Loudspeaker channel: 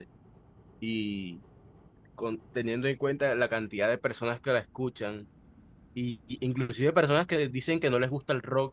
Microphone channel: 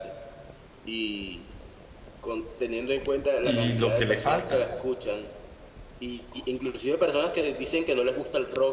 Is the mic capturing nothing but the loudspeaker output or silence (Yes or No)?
No